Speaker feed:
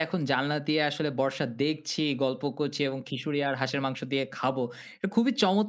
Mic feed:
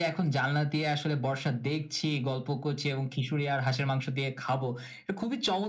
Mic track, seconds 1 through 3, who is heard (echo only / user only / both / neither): echo only